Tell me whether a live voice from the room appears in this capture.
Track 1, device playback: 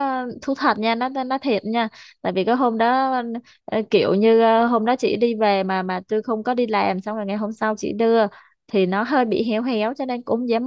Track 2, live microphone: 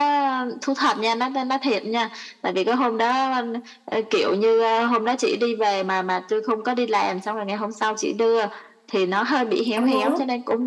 Yes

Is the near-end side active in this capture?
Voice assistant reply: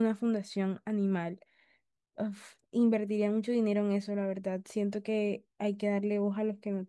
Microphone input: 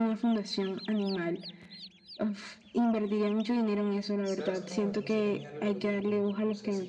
Yes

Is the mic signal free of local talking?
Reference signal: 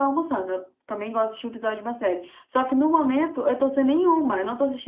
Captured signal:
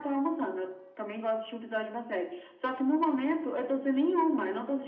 Yes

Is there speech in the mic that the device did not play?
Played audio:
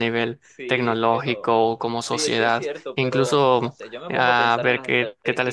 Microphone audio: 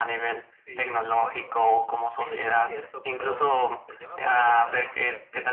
No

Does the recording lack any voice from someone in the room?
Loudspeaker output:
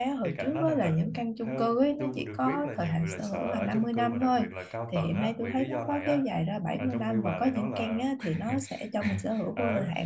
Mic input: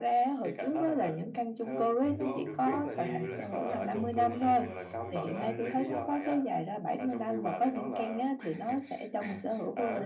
No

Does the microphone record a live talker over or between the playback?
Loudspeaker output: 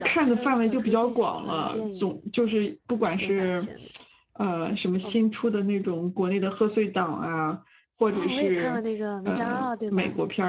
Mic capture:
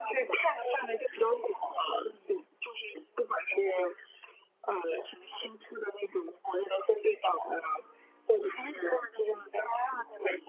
No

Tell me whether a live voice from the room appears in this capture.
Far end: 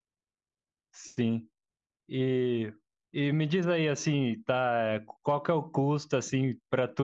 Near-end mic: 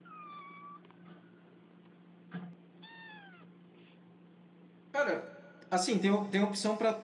Yes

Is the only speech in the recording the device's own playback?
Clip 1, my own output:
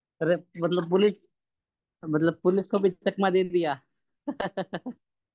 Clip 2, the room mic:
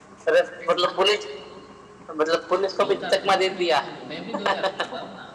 No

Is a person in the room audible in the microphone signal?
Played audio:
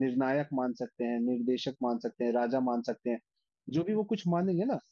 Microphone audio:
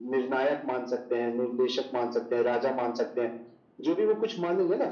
No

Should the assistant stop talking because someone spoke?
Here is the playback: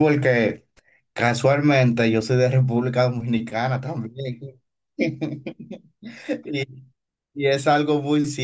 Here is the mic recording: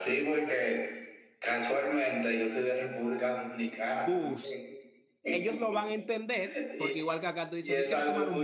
Yes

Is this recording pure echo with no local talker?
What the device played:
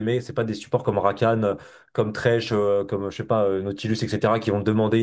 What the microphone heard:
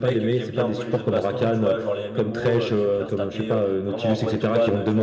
No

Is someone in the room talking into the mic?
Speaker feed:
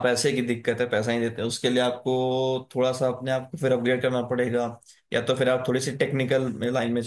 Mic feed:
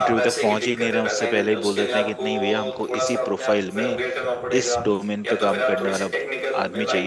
Yes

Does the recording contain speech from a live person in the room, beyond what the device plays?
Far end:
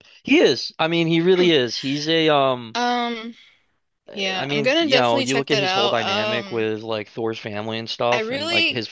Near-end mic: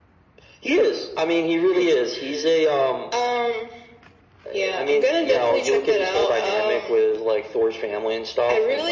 No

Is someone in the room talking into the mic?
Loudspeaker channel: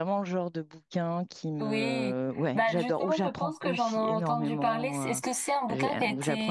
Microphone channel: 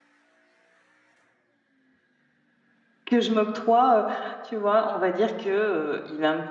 Yes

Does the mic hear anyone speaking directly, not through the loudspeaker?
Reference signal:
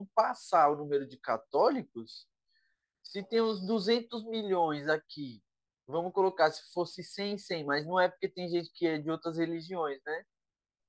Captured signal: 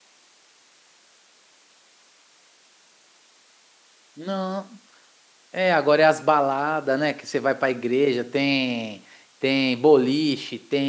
Yes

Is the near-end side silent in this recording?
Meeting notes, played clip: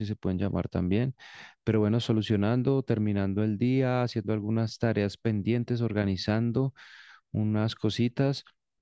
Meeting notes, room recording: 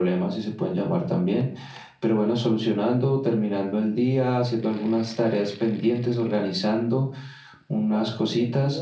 No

